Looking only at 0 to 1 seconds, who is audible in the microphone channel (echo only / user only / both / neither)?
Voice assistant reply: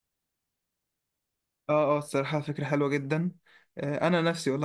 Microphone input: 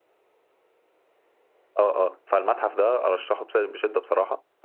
neither